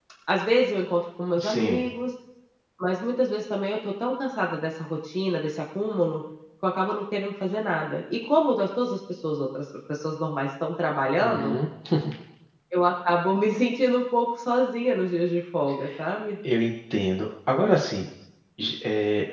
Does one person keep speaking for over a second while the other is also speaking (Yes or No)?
No